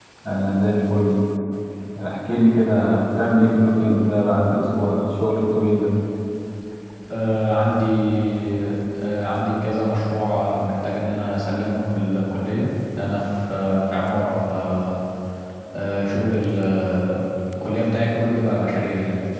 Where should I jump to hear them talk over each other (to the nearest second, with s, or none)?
none